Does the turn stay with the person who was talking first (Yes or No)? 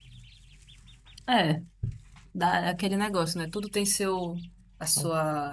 Yes